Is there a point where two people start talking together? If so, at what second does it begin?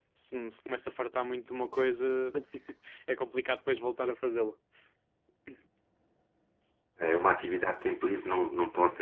none

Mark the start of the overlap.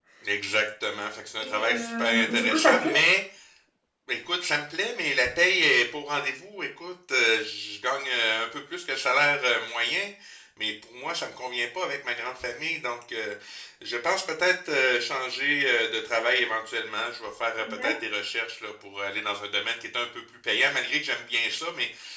1.4 s

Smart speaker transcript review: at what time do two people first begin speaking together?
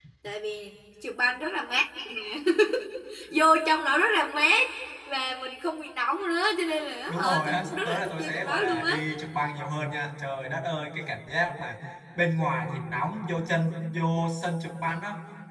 7.1 s

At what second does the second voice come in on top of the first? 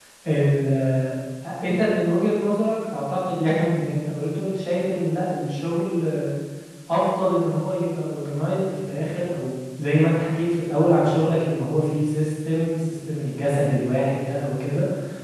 none

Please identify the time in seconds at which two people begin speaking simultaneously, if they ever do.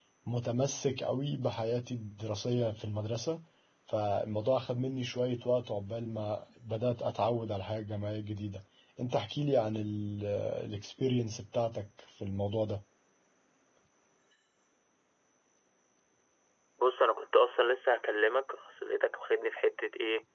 none

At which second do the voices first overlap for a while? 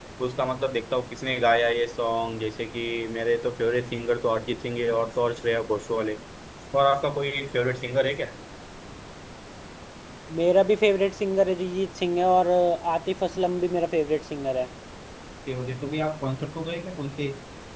none

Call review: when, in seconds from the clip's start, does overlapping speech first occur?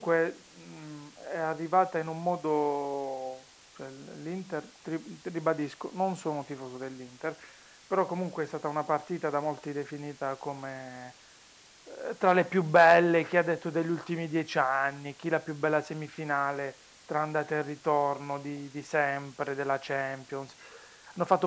none

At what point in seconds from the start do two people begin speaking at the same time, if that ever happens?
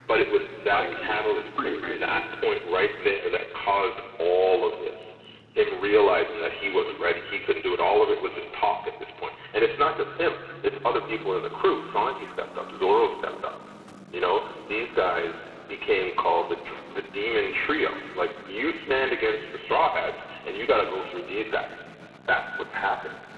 0.7 s

